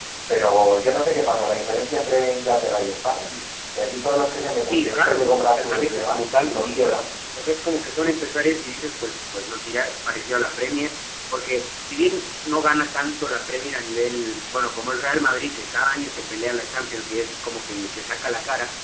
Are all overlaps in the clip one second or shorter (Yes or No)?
No